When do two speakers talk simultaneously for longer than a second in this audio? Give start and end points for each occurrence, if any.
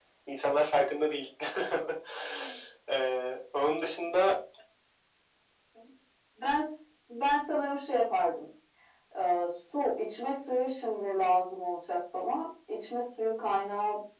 none

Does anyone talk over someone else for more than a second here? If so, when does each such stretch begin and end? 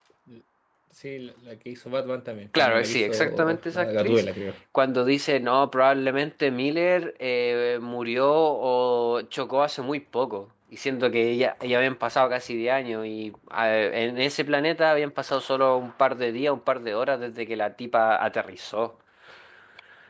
2.6-4.2

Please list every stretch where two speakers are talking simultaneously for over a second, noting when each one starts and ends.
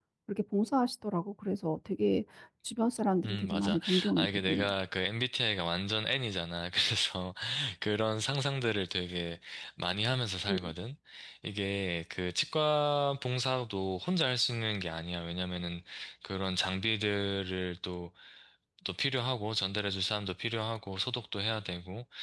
3.2-4.7

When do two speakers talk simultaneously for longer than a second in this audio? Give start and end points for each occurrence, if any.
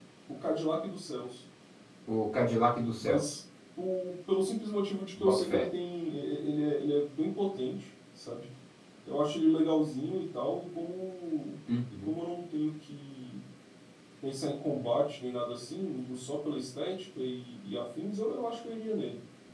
none

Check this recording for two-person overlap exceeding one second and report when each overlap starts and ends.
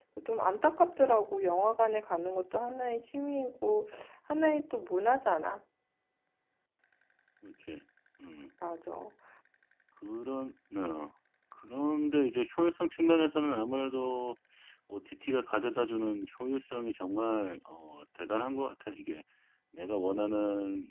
none

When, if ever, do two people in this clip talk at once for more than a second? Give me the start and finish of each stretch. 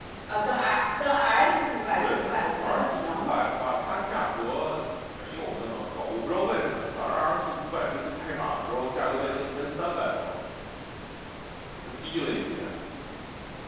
2.0-3.2

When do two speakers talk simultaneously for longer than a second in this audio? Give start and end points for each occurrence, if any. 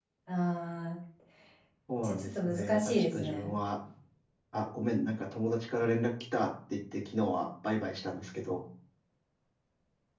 2.0-3.5

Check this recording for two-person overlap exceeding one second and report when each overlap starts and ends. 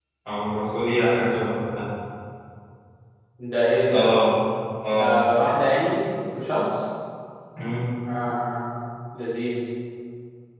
none

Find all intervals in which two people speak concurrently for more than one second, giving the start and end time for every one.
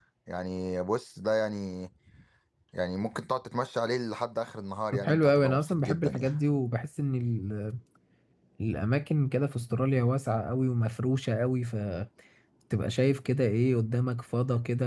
4.9-6.3

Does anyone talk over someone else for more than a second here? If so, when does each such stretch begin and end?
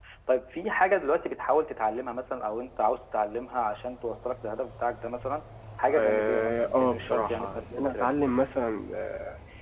6.0-8.1

